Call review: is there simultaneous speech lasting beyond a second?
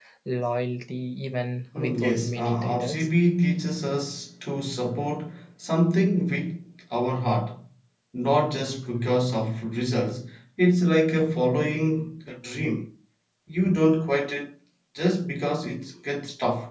Yes, from 1.7 s

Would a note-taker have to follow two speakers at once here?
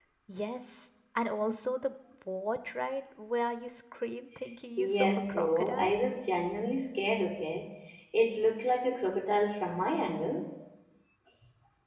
Yes, from 4.8 s

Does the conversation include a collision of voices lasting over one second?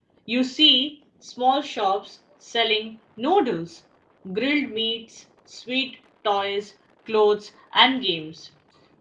No

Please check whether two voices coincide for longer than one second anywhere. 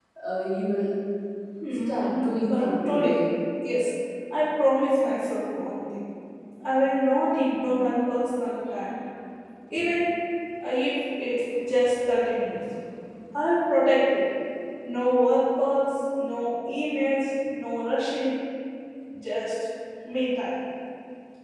Yes, from 1.9 s

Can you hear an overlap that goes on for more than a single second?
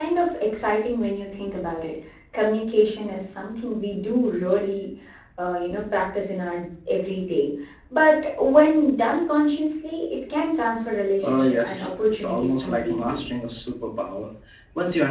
Yes, from 11.2 s

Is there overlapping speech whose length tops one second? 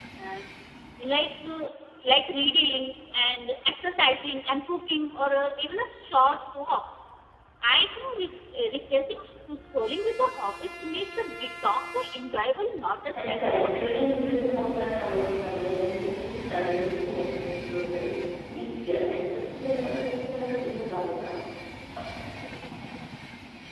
No

